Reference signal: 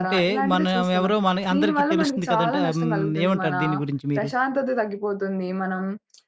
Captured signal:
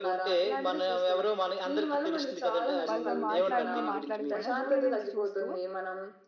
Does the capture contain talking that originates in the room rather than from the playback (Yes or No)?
Yes